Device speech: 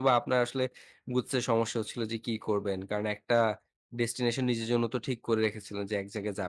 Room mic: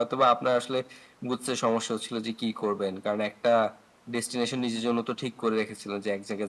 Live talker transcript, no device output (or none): none